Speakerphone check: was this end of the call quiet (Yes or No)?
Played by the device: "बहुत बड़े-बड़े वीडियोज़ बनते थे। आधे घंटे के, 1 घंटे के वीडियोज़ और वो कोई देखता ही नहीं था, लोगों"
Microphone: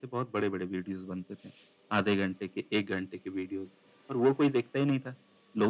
Yes